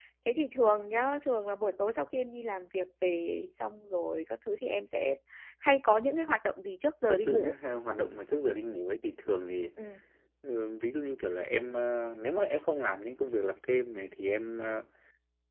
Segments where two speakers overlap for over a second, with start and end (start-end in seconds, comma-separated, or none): none